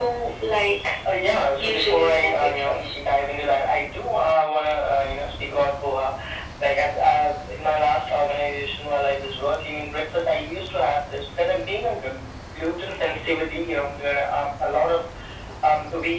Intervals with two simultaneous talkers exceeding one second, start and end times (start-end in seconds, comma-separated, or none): 1.7-2.9